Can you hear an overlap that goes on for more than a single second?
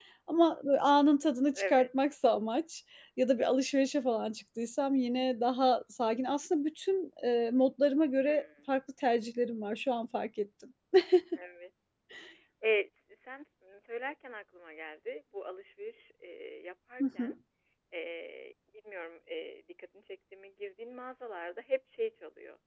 No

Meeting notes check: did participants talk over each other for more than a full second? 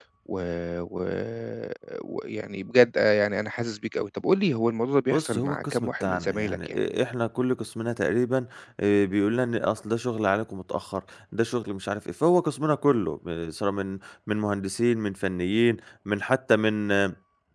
Yes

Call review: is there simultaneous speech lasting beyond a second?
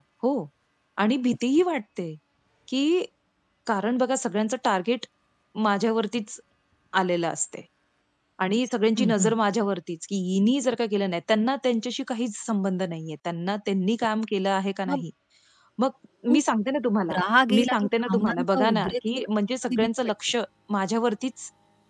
Yes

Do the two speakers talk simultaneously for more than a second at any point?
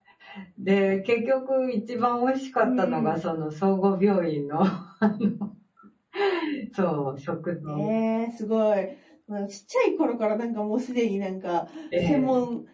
No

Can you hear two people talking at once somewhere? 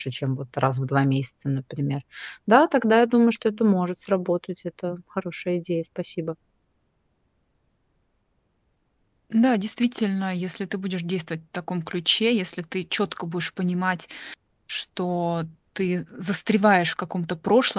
No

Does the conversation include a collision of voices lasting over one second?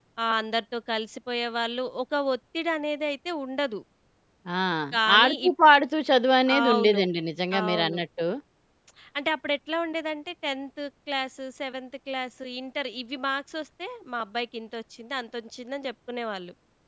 No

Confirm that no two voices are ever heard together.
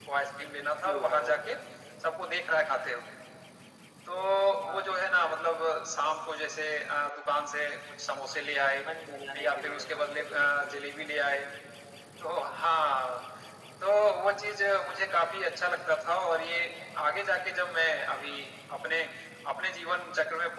No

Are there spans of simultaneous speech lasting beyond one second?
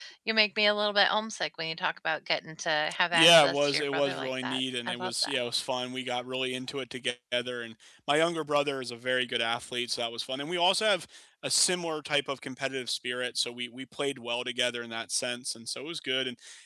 Yes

